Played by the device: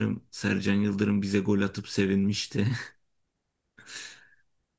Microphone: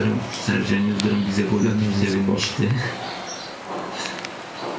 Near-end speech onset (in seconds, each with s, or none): 1.6 s